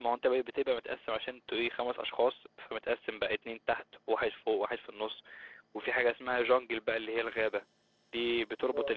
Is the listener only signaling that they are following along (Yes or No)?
Yes